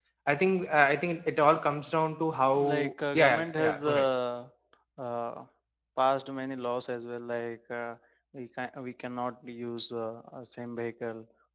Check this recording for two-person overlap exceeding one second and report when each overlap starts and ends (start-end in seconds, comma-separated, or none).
2.6-4.1